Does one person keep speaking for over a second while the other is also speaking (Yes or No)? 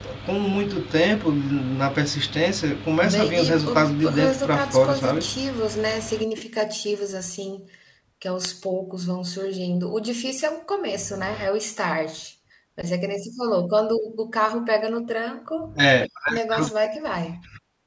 Yes